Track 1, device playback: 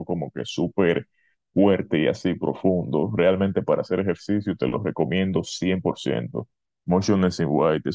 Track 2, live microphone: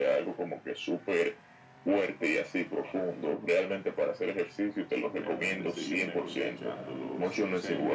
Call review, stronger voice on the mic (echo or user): echo